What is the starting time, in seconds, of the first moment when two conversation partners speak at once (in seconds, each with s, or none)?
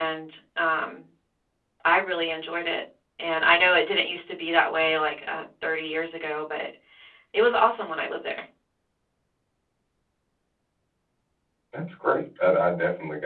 none